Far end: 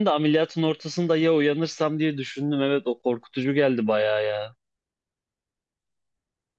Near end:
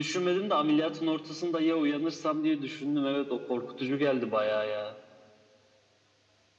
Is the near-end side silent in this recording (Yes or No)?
Yes